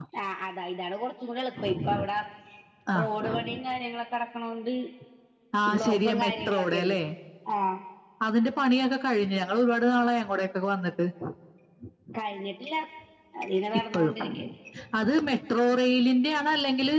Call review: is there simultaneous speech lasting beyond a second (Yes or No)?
Yes